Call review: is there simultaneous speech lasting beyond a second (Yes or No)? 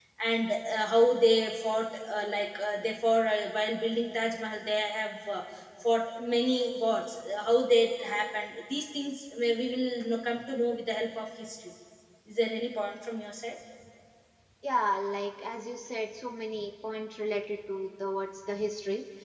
No